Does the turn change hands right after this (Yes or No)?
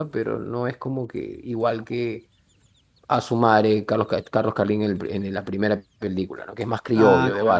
Yes